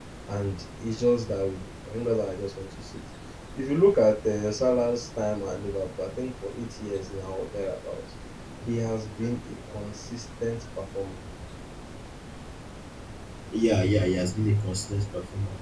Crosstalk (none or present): none